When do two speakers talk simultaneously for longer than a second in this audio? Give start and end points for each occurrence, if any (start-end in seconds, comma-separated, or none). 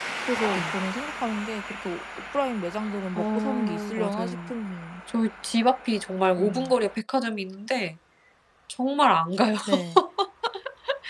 3.1-4.5